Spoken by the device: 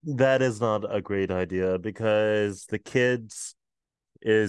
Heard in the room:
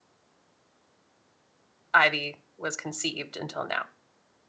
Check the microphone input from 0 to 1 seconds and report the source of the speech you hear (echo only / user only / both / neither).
neither